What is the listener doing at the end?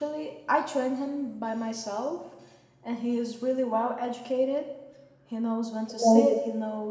listening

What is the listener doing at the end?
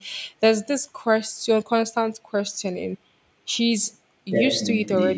listening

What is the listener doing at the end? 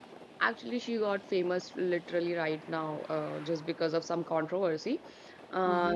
taking over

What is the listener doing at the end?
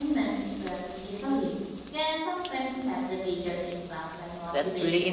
taking over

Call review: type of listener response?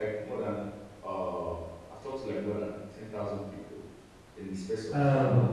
listening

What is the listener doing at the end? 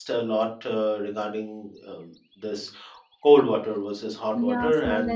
taking over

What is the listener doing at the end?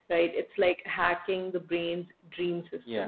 listening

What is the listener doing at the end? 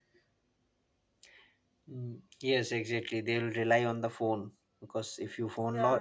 listening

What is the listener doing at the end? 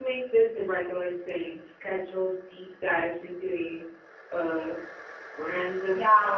taking over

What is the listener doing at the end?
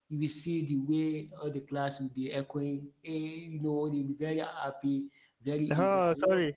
taking over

